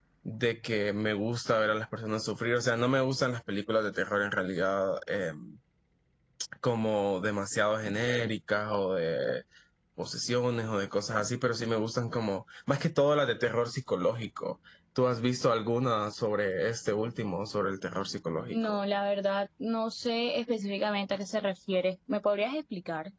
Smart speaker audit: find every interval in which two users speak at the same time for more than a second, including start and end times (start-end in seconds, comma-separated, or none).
none